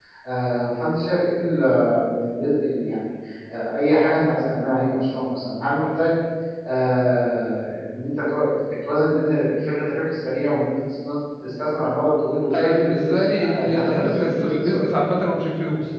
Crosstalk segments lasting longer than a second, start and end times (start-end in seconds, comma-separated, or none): 12.5-15.0